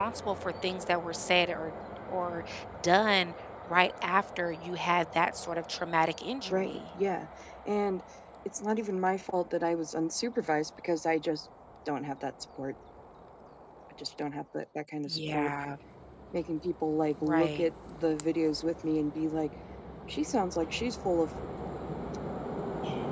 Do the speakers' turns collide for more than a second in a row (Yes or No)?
No